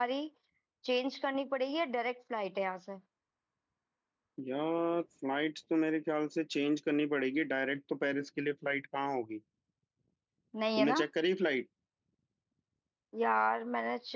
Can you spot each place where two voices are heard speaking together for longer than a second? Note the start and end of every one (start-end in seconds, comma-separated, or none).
none